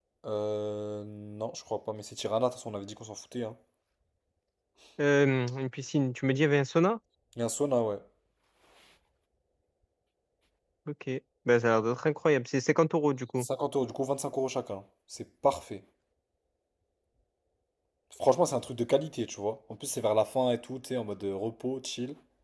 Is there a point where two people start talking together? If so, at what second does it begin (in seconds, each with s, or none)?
none